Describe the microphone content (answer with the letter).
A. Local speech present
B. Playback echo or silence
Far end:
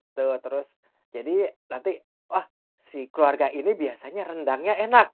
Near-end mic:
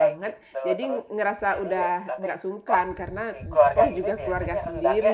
A